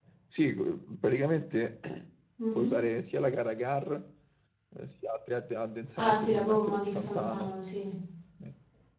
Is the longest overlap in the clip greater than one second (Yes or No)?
Yes